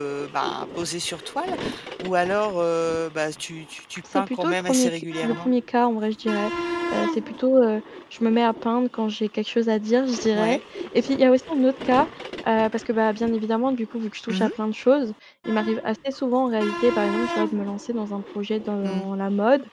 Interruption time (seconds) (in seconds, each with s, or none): 4.2 s